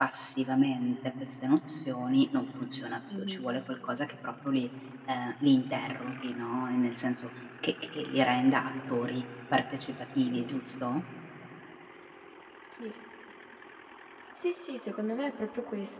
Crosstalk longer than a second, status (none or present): none